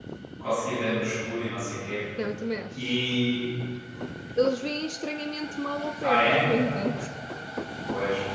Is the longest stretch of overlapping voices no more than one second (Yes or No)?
Yes